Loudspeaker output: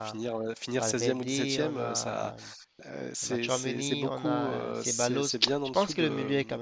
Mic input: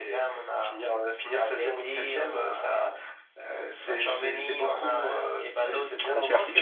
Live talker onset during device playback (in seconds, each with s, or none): 5.6 s